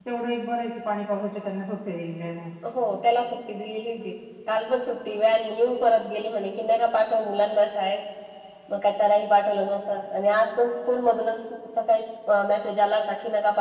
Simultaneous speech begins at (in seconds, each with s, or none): none